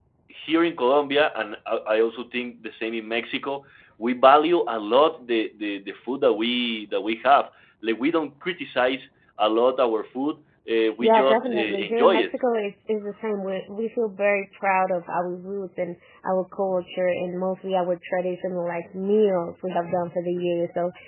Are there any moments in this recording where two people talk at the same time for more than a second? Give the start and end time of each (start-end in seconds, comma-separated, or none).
11.0-12.3